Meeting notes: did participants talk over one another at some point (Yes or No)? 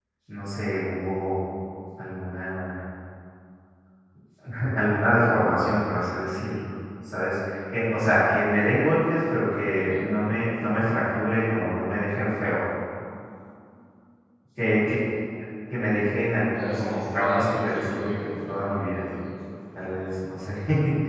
Yes